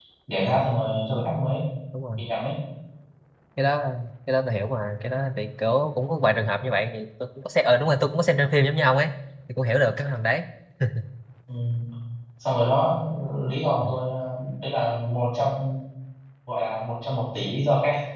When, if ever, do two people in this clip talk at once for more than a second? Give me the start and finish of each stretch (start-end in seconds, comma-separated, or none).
none